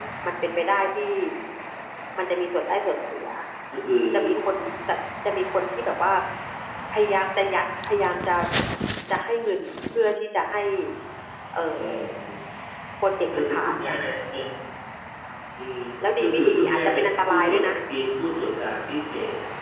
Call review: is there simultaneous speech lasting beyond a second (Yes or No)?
Yes